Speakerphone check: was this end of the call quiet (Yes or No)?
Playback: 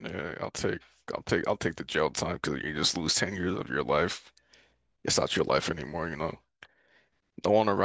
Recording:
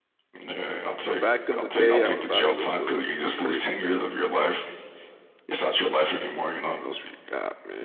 No